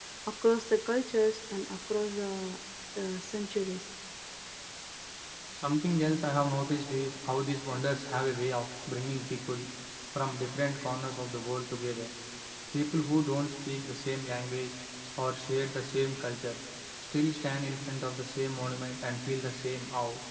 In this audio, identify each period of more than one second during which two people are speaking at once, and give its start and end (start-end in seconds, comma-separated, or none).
none